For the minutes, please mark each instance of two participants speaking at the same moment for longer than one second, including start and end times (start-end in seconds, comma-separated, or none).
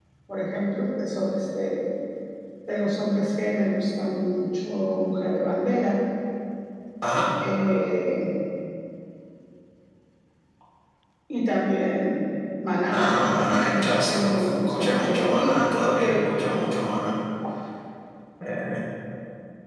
12.9-15.5